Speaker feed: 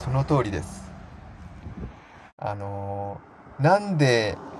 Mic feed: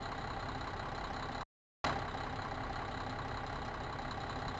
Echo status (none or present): none